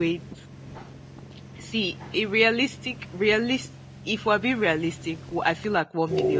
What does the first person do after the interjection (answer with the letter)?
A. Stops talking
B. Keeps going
B